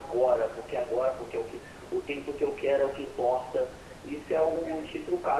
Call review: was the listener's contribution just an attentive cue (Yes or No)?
Yes